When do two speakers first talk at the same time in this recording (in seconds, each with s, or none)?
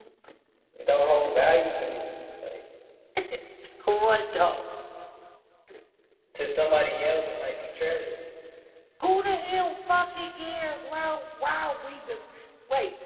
none